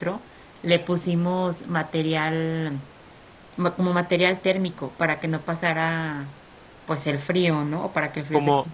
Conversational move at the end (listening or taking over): taking over